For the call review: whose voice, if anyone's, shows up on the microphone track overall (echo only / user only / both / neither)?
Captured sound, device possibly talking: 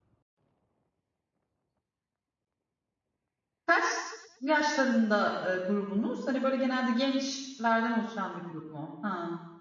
user only